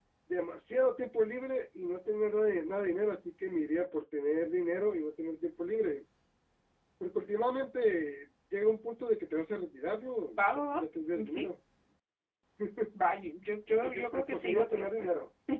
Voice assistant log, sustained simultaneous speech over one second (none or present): present